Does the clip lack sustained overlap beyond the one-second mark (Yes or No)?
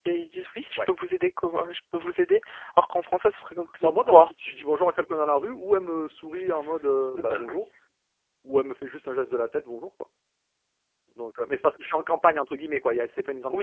Yes